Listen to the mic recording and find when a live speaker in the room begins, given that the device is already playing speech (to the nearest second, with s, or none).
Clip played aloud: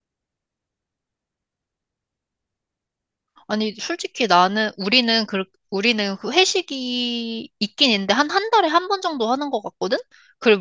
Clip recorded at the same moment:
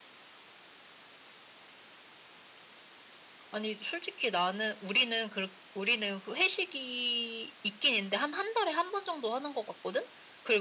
none